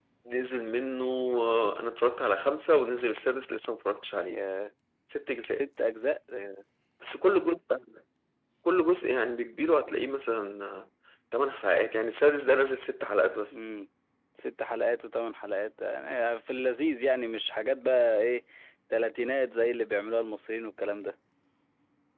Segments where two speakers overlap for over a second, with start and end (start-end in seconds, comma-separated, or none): none